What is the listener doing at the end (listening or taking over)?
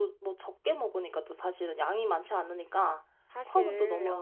taking over